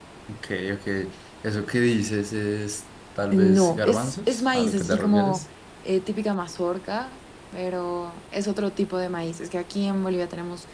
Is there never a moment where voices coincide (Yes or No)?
No